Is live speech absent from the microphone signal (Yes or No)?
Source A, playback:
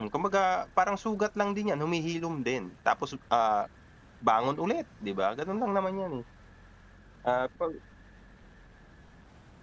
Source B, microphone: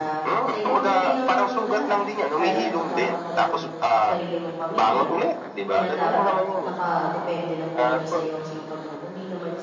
No